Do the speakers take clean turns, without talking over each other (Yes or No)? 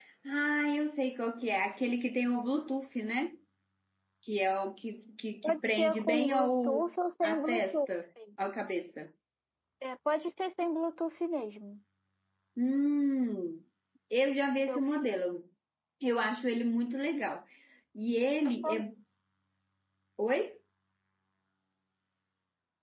No